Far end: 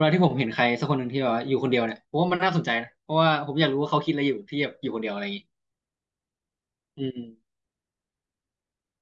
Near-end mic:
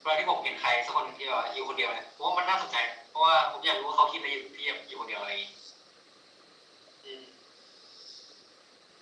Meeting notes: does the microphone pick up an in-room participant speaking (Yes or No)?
No